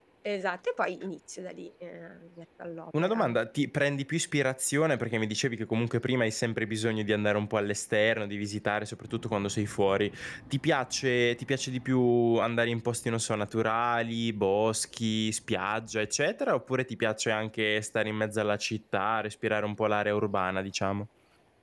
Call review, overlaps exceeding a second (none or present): none